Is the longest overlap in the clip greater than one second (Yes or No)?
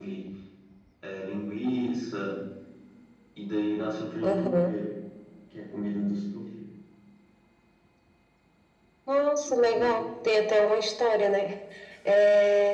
No